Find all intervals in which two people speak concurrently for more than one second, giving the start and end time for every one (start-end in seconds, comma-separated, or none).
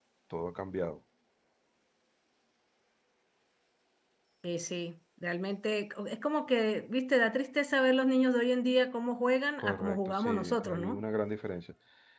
9.6-11.0